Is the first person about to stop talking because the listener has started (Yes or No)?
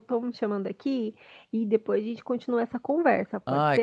Yes